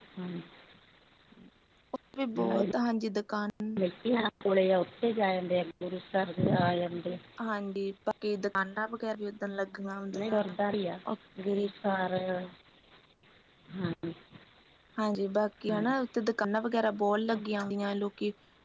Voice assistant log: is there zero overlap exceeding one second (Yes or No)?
Yes